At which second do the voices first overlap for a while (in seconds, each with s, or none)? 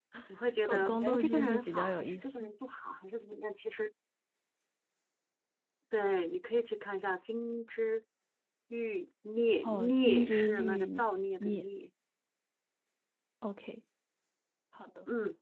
0.6 s